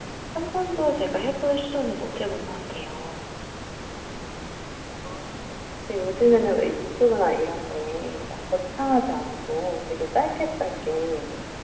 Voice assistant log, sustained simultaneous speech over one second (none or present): none